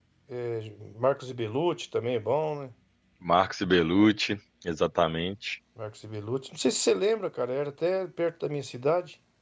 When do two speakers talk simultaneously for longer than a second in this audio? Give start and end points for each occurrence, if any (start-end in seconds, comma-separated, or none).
none